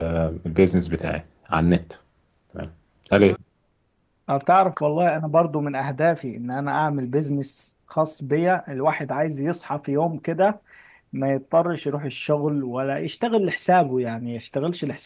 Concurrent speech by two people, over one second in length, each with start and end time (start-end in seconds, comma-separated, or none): none